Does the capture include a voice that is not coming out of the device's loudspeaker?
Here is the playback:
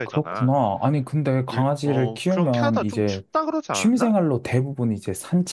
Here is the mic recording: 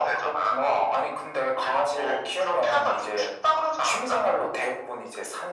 No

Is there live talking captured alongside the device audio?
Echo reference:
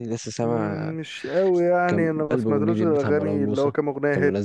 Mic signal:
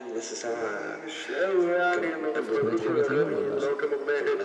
Yes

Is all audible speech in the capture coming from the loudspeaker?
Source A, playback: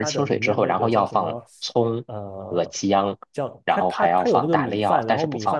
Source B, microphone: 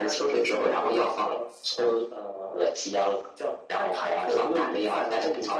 Yes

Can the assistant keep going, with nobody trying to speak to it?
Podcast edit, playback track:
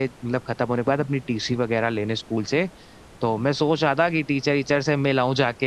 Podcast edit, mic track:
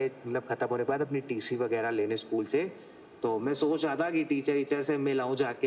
Yes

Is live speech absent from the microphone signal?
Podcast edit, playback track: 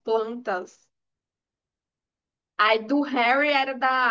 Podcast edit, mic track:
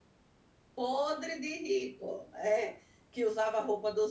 No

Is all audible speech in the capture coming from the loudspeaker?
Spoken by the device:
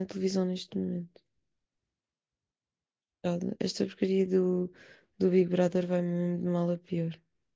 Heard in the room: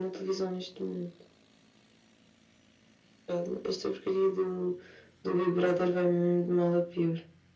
Yes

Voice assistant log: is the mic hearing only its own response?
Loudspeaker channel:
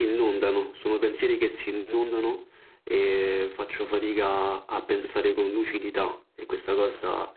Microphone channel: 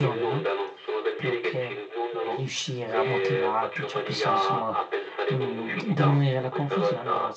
No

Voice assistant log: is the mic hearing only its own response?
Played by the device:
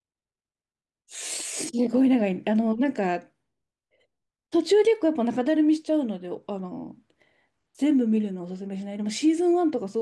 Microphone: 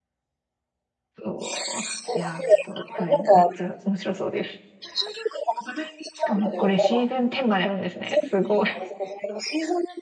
No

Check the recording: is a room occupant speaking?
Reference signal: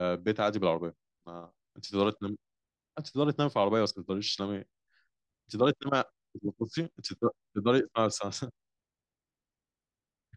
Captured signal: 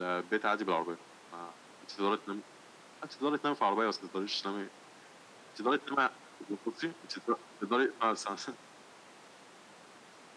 No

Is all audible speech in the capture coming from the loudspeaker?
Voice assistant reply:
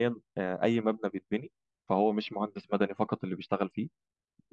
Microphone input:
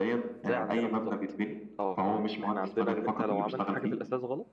No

